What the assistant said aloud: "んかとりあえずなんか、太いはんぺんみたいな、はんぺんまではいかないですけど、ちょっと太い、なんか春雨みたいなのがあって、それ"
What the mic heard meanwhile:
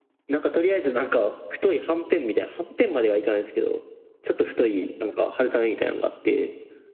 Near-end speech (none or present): none